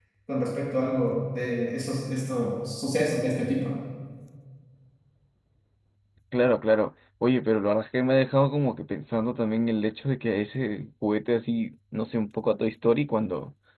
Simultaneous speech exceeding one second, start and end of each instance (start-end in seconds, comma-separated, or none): none